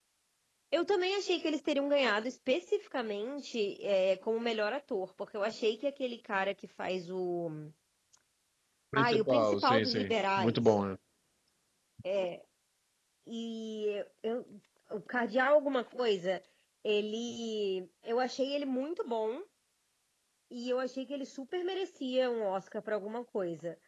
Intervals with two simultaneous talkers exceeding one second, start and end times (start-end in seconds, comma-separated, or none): 8.9-10.7